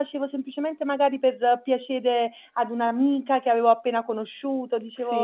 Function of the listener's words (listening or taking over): taking over